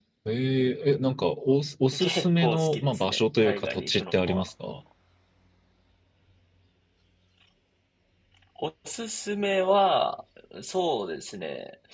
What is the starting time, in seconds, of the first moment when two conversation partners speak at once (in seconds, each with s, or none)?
1.9 s